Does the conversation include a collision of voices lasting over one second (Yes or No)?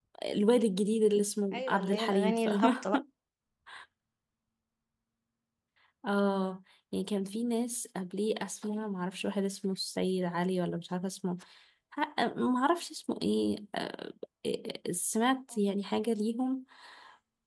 Yes